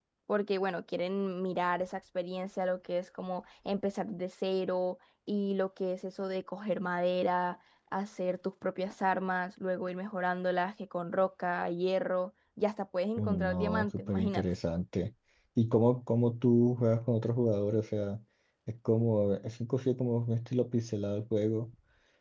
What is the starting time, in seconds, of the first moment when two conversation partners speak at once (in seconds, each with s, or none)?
13.2 s